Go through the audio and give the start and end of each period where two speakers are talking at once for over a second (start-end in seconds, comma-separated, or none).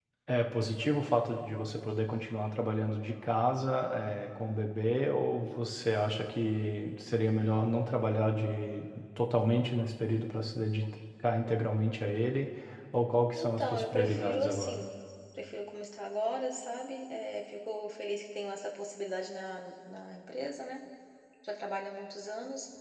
13.4-14.8